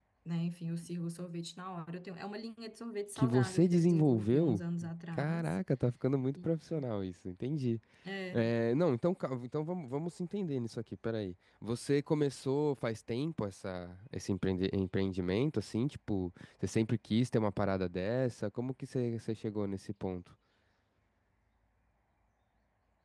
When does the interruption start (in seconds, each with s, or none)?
3.2 s